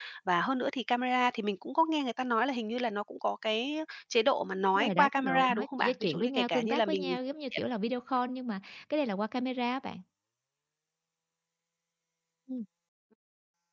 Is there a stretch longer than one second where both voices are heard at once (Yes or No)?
Yes